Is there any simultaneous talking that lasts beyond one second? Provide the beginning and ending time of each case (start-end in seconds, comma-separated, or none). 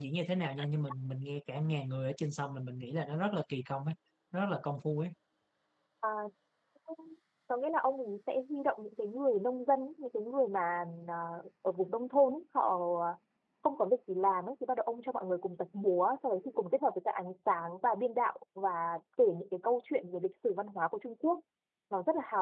none